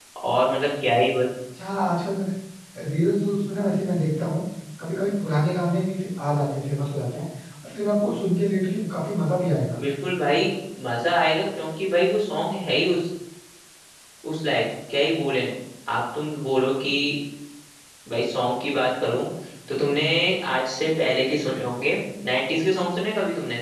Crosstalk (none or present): none